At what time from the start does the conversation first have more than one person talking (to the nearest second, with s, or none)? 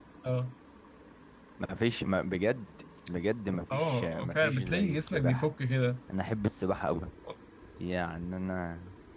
4 s